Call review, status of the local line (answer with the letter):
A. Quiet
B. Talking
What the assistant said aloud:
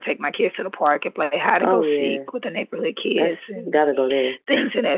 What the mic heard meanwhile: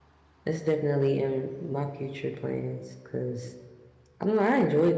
B